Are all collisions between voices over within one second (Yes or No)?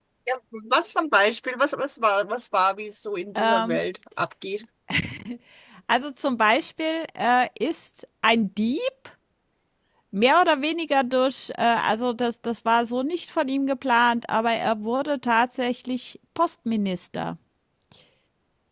Yes